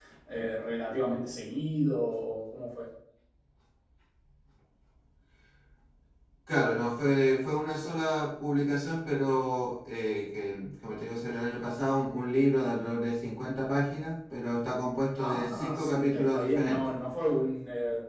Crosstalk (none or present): present